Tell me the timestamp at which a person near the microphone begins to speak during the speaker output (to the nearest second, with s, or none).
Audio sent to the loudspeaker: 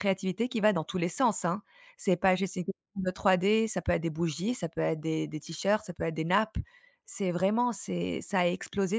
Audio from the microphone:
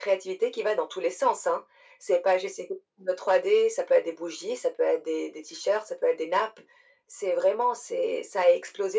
none